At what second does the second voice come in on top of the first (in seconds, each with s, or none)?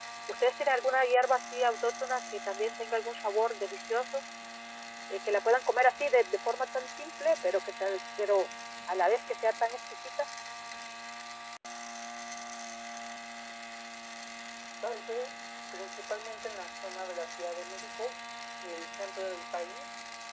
none